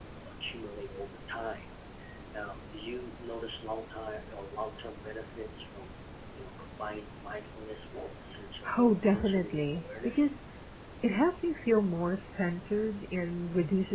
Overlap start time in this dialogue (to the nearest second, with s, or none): 9 s